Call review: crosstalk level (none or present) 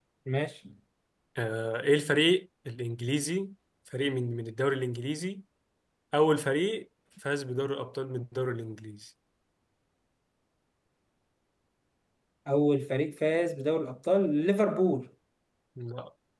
none